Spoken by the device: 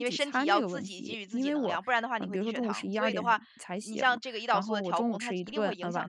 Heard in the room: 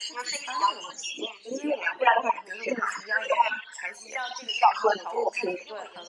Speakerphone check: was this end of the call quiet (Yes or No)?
Yes